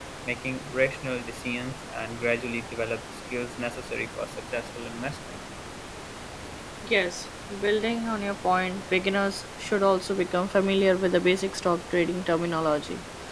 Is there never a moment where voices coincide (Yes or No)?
Yes